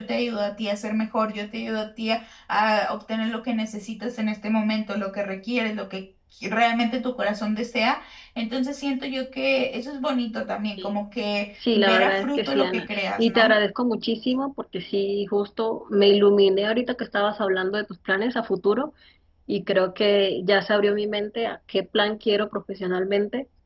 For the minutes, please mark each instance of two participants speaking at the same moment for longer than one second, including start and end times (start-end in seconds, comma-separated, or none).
11.7-13.5